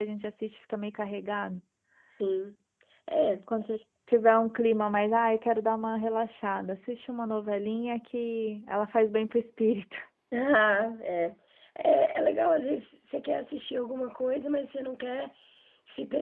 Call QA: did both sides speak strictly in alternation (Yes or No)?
Yes